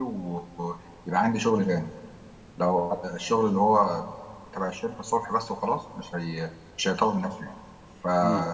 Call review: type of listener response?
listening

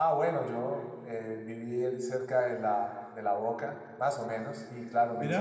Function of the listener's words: listening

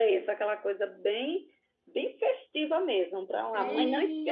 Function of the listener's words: taking over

